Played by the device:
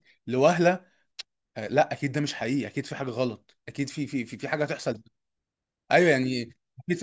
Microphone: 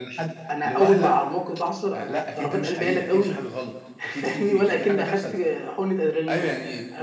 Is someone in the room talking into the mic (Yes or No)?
Yes